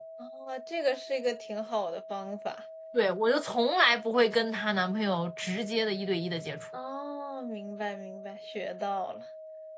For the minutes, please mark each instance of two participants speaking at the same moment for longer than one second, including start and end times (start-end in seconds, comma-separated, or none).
none